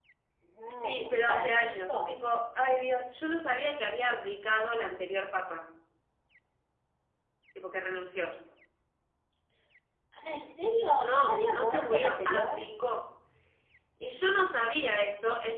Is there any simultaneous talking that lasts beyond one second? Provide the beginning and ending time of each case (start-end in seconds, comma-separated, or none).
0.7-2.1, 10.9-12.6